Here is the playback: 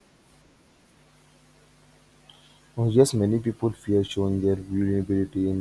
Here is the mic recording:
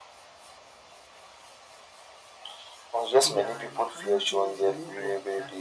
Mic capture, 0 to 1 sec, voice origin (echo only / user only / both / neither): neither